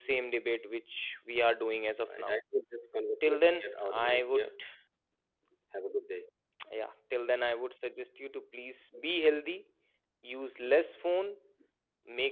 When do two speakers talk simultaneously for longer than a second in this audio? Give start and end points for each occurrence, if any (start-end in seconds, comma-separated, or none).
3.3-4.5